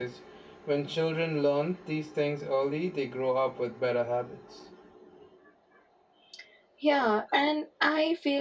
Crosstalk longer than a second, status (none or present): none